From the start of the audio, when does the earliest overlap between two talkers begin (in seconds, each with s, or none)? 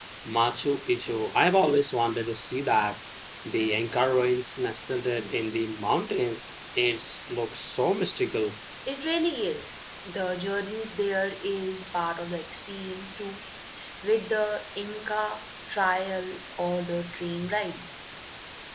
none